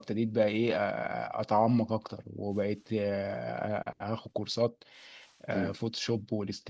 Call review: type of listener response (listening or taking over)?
listening